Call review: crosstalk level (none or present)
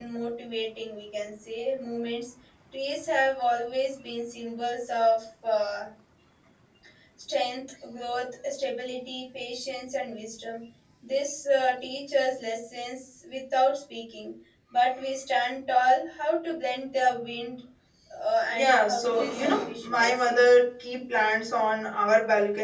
present